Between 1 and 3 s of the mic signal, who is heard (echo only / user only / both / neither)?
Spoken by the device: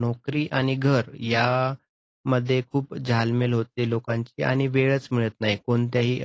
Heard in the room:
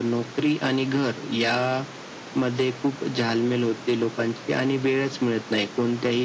echo only